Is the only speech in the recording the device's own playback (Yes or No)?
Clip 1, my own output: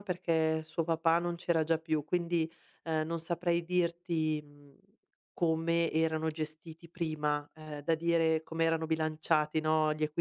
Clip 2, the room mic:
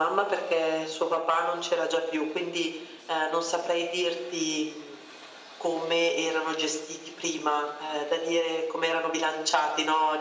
Yes